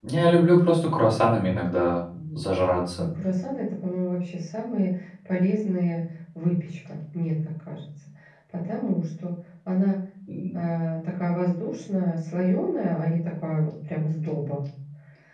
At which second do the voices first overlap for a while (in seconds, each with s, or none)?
none